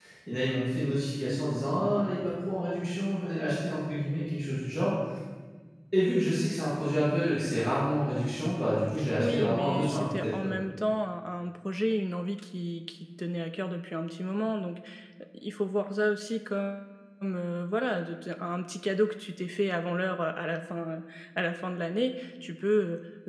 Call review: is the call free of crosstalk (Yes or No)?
No